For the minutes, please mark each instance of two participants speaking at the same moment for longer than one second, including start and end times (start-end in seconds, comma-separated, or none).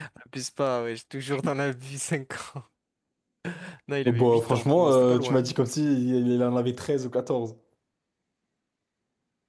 4.0-5.5